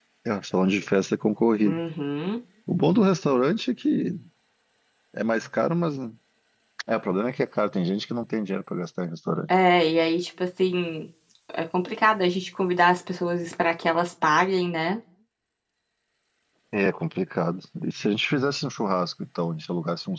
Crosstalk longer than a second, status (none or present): none